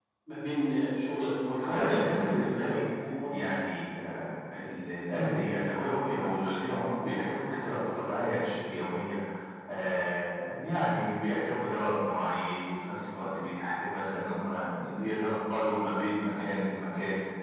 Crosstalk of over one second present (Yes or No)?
Yes